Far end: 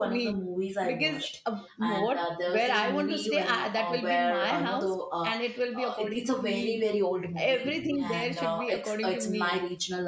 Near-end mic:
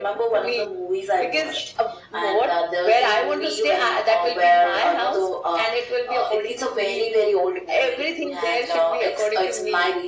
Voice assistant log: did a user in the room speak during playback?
No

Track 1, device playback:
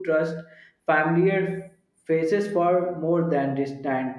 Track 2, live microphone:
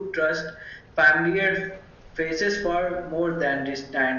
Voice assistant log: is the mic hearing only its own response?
Yes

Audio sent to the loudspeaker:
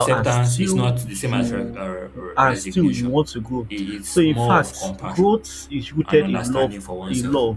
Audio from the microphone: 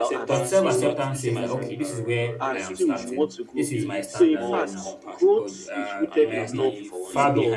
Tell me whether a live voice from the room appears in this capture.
Yes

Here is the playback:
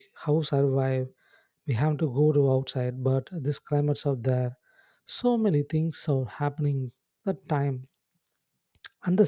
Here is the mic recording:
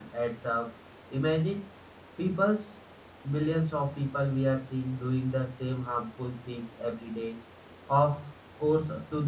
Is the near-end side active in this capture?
Yes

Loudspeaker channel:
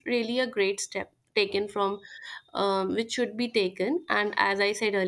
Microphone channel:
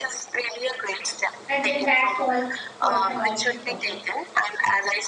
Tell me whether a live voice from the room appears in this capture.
Yes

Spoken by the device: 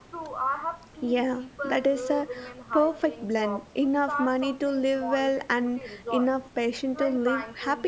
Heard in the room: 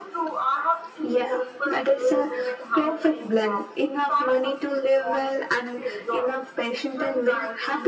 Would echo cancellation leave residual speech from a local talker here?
No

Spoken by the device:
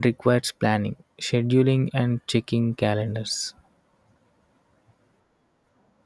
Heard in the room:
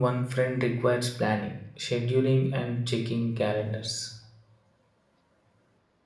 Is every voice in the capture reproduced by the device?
Yes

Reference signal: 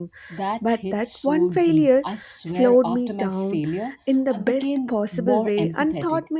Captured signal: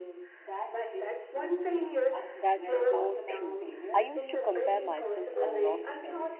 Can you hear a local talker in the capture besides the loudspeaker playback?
Yes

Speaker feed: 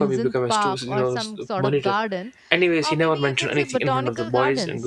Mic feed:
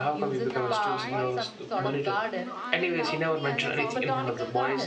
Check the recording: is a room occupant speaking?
Yes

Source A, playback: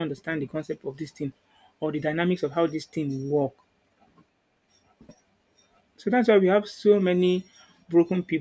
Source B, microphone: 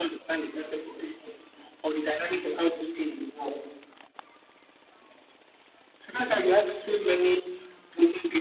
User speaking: No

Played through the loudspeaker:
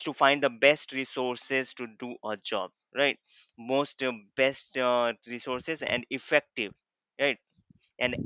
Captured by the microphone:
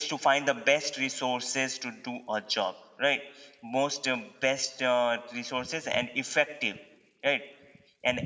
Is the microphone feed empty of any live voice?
Yes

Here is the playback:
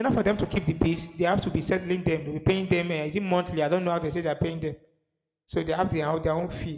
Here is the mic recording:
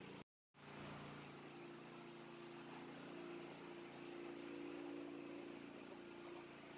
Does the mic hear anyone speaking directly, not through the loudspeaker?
No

